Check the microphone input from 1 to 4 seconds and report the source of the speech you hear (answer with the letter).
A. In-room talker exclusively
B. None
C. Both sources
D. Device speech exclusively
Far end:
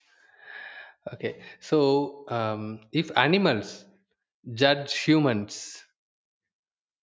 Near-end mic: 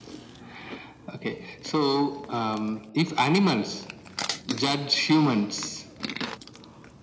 D